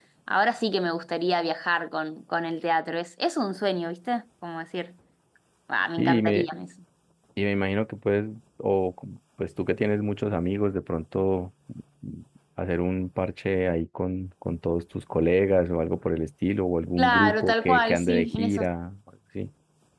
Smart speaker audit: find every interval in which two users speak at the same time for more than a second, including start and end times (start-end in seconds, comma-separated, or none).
17.0-18.6